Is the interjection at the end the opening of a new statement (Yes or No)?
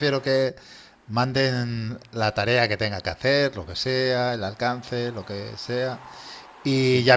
No